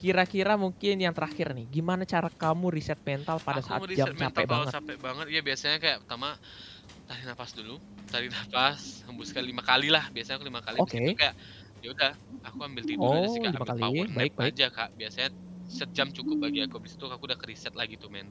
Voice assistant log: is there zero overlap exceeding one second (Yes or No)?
No